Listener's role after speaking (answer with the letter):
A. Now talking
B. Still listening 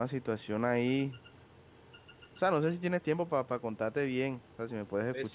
A